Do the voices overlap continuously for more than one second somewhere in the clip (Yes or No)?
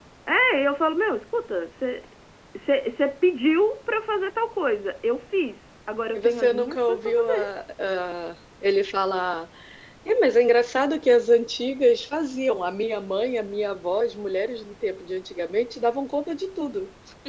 Yes